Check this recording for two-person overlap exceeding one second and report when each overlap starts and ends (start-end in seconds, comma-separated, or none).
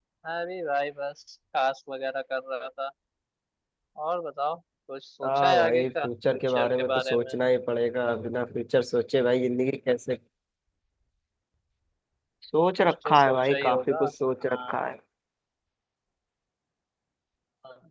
5.2-7.3, 12.8-14.0